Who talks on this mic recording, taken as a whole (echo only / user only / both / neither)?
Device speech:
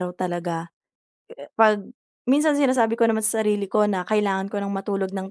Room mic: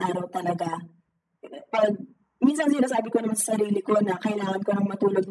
echo only